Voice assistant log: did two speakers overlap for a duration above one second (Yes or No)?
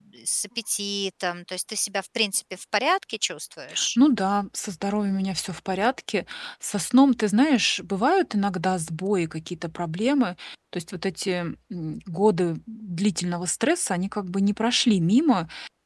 No